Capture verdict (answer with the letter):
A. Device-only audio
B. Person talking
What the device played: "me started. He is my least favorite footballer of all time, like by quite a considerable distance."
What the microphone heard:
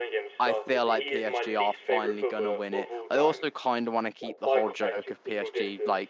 B